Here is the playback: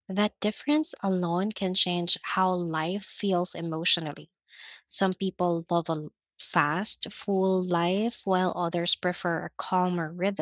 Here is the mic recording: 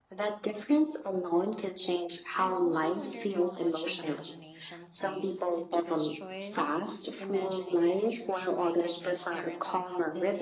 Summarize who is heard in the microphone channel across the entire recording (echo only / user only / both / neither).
both